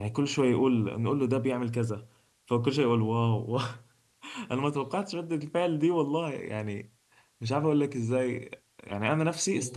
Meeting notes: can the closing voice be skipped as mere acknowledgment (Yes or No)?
Yes